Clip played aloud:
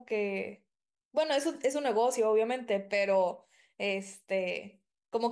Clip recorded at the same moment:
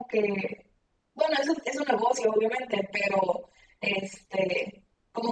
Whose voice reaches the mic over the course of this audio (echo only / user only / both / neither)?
echo only